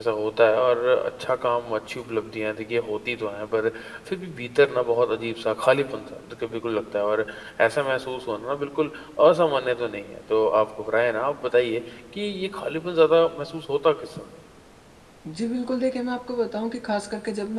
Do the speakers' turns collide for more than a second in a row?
No

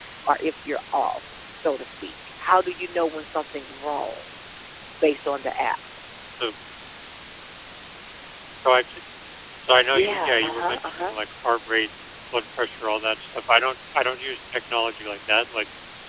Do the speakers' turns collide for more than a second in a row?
Yes, from 9.8 s

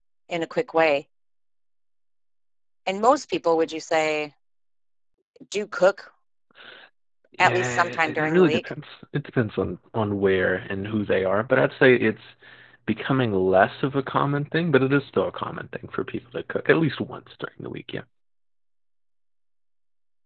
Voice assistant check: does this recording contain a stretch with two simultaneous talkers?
Yes, from 7.4 s

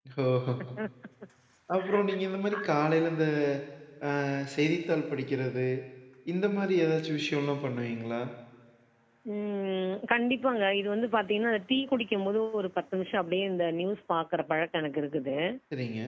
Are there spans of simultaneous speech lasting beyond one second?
No

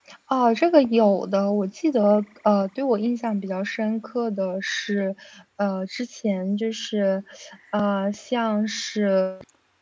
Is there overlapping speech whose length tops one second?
No

